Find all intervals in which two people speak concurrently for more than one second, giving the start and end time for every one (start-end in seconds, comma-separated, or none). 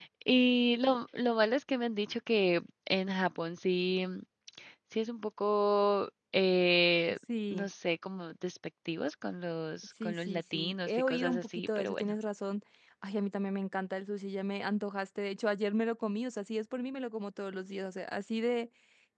10.0-12.1